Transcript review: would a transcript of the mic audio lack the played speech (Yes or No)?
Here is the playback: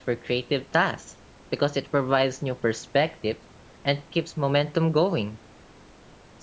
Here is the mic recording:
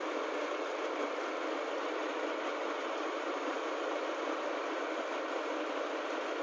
Yes